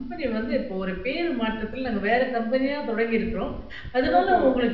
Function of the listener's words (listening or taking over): listening